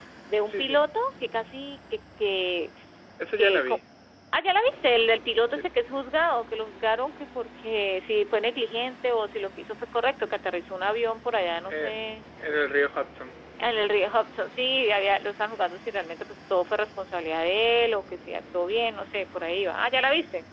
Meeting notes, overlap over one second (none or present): none